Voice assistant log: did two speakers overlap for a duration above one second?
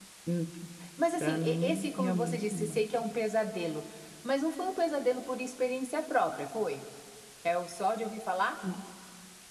Yes, from 1.2 s

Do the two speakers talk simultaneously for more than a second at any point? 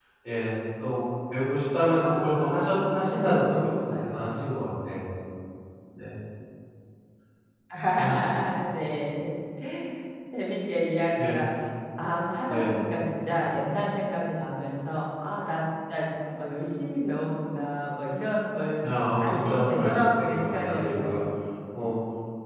Yes, from 2.0 s

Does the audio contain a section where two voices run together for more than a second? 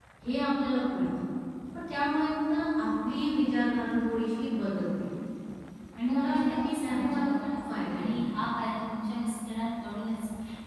Yes, from 6.1 s

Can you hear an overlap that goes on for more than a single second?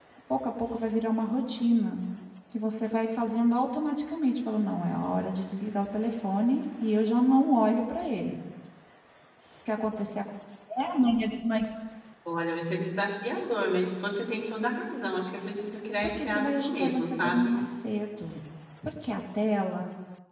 Yes, from 16.0 s

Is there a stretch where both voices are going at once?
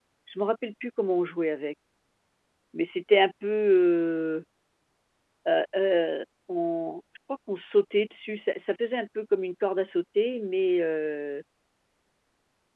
No

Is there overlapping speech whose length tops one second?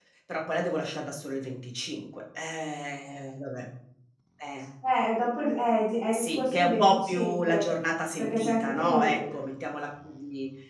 Yes, from 6.1 s

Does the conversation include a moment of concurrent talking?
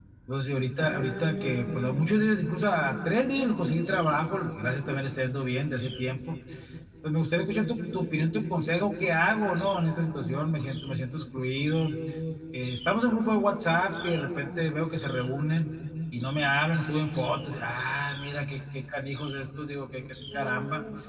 Yes, from 0.8 s

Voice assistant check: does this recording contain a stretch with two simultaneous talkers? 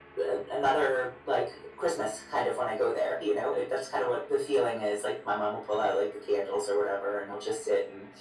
No

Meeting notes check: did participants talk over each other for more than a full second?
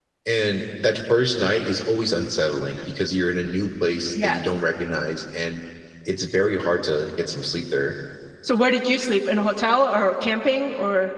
No

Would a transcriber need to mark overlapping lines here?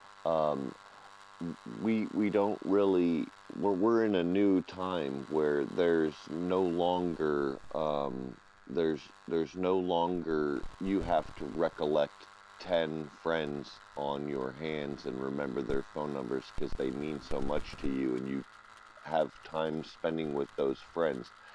No

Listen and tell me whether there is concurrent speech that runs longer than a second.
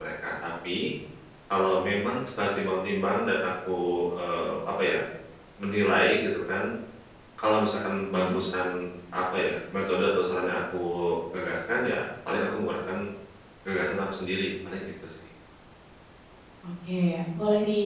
No

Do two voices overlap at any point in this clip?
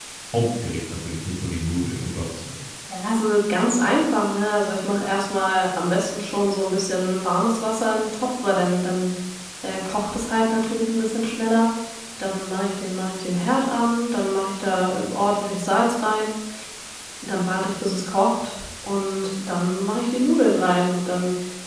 No

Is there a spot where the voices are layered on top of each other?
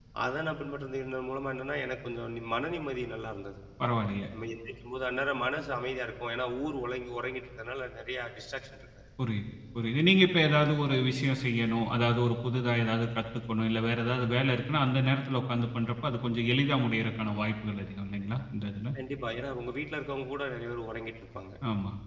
No

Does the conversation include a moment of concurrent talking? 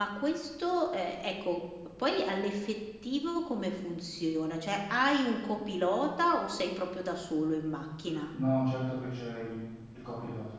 No

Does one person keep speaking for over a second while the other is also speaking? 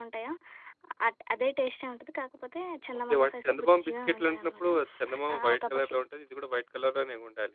Yes, from 3.1 s

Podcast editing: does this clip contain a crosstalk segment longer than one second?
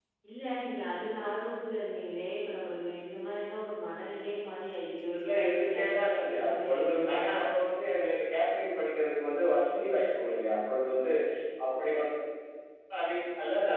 Yes, from 5.1 s

